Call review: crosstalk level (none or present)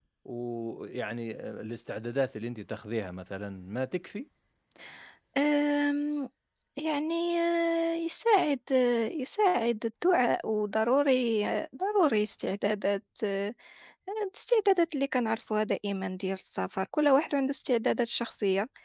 none